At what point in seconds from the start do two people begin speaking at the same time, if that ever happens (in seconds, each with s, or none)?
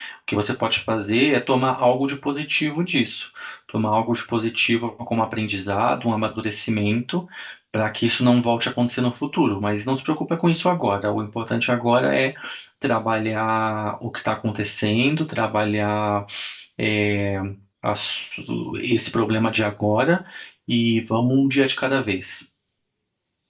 none